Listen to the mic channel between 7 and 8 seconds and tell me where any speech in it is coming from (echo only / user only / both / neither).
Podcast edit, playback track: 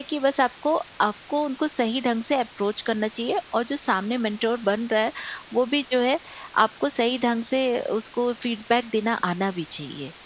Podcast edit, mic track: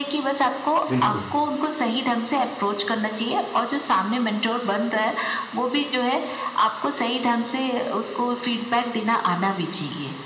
echo only